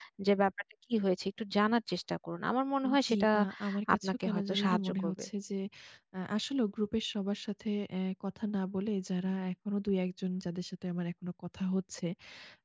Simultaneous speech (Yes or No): Yes